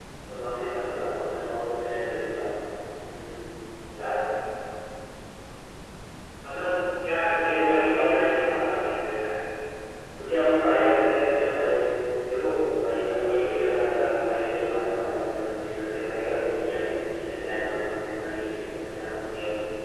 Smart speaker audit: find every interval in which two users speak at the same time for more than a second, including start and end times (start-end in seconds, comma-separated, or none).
7.3-8.7, 12.9-14.2